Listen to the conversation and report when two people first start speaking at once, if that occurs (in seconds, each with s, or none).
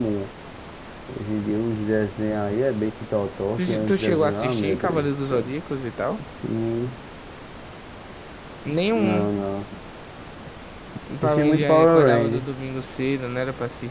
3.6 s